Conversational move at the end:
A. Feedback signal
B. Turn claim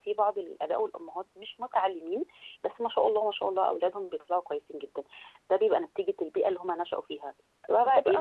A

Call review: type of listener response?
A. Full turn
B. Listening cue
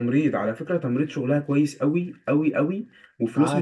B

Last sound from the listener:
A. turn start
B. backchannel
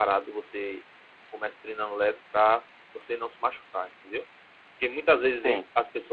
B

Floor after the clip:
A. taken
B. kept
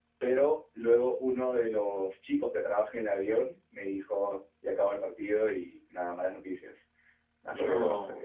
B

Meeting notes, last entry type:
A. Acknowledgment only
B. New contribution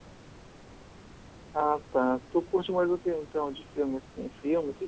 B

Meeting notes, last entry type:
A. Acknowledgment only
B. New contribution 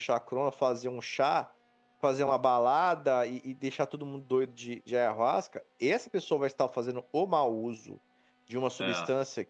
A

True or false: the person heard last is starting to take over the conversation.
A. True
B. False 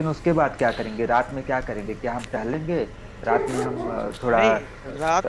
A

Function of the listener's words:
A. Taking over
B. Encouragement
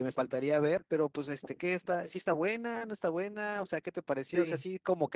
B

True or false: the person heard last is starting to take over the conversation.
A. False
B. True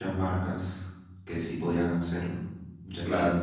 B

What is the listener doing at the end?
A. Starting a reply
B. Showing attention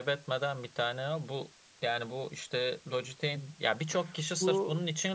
B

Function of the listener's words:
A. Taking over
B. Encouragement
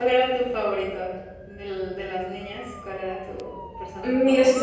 A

